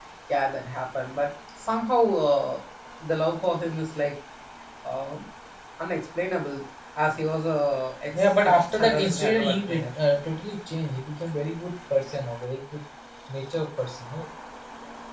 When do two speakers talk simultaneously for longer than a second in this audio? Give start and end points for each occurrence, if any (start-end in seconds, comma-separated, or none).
8.2-9.9